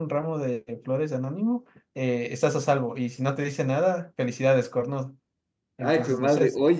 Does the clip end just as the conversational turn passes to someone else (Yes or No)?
Yes